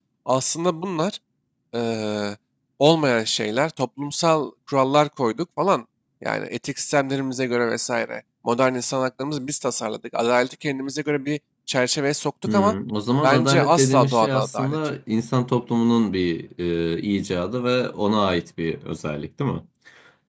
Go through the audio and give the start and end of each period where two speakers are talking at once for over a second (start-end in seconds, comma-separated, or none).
13.2-14.8